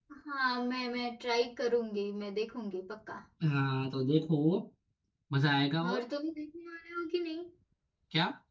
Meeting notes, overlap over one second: none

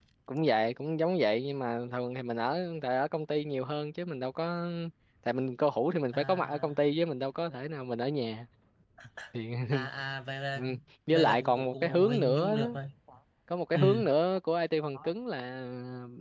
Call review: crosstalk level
present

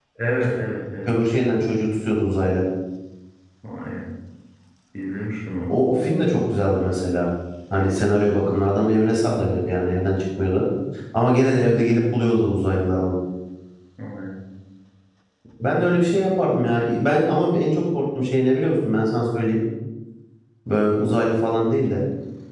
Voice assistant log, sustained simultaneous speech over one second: none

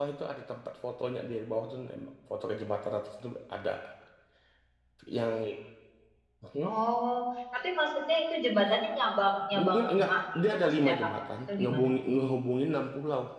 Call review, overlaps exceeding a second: present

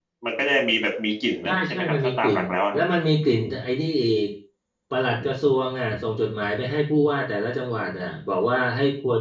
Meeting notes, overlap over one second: present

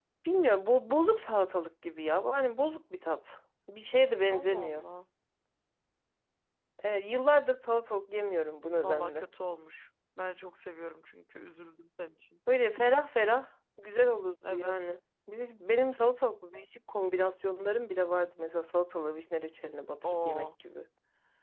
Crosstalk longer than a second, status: none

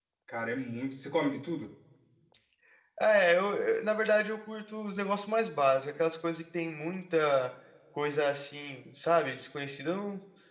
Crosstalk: none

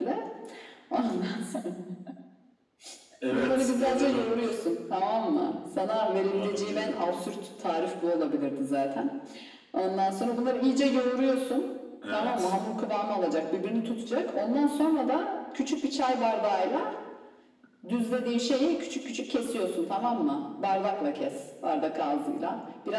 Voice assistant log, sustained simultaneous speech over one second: present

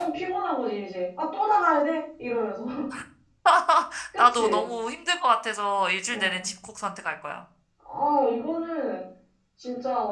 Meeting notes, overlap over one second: none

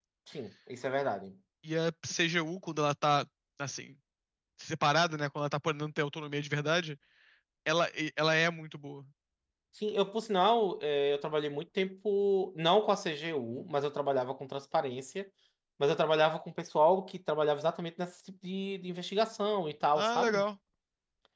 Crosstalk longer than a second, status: none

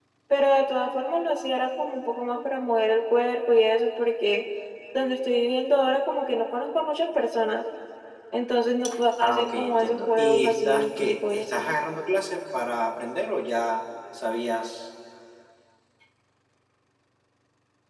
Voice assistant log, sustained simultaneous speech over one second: present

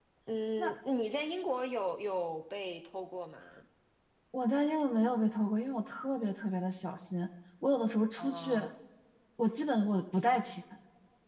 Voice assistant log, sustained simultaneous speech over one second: none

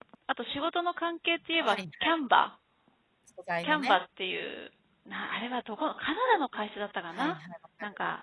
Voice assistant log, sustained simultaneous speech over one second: none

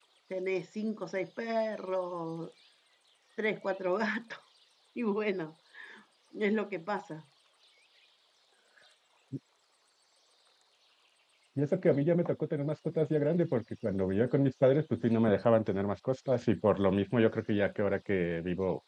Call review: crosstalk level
none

